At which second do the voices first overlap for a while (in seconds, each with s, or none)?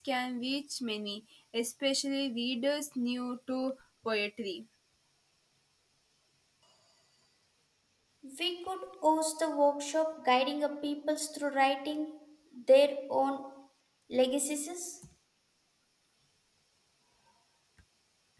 none